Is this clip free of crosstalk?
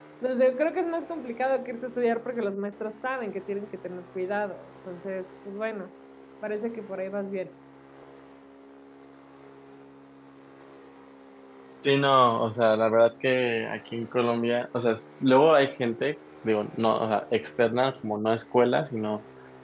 Yes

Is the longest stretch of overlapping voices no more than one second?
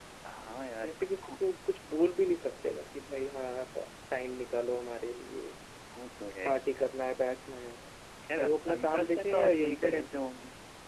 No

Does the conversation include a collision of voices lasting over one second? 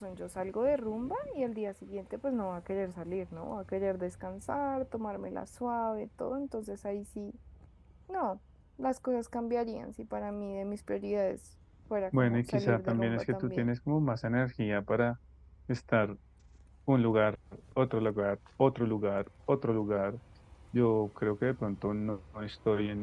Yes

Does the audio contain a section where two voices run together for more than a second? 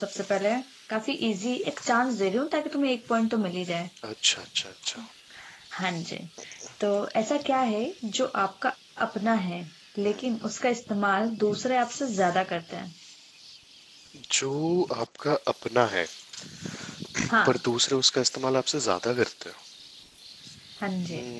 No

